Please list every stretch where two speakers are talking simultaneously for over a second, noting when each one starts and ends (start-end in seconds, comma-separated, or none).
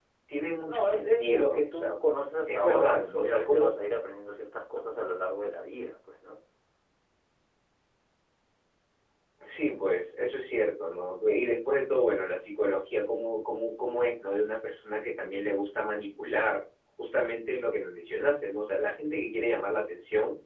0.7-1.9, 2.5-3.7